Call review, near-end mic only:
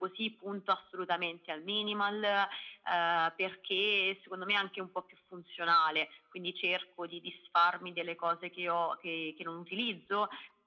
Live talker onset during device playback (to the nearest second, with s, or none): none